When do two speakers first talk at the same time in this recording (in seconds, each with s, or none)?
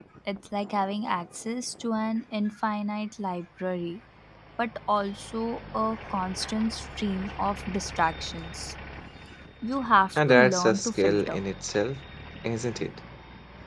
10.2 s